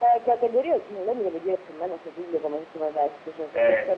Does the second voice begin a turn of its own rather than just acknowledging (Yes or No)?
No